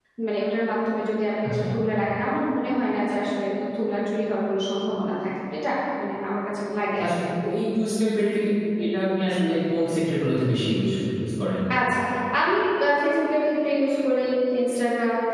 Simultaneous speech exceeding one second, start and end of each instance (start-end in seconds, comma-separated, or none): none